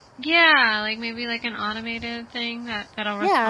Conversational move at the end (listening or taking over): taking over